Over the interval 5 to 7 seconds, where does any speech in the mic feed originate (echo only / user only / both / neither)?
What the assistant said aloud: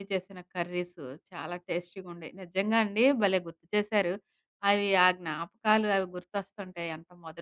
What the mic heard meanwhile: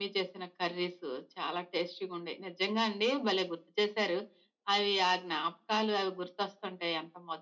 echo only